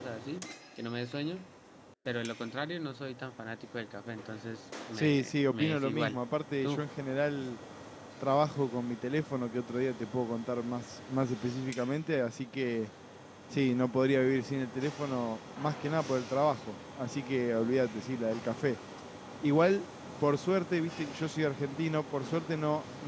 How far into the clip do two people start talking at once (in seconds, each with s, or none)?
4.9 s